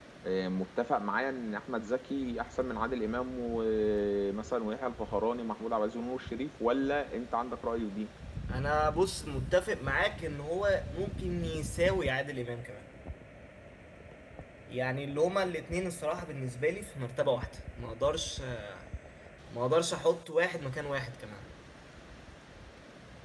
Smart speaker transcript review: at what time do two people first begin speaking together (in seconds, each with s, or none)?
none